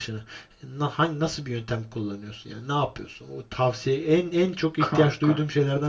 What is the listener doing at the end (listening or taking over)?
listening